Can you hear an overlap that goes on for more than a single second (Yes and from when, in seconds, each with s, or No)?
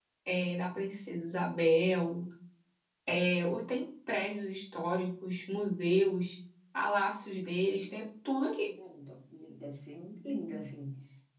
No